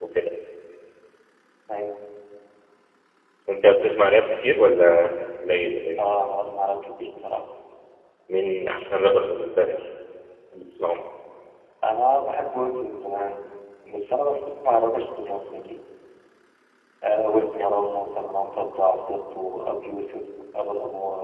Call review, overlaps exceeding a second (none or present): none